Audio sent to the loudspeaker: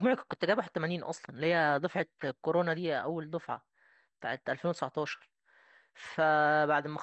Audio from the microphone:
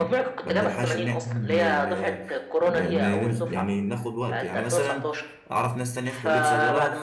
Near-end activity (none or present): present